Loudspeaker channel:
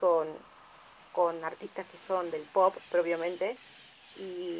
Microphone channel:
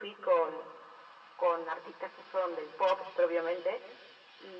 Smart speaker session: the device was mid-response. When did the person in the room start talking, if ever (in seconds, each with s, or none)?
none